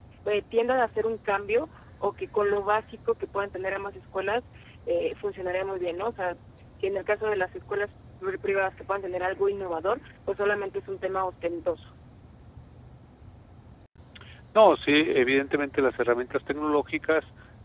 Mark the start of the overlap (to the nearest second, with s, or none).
none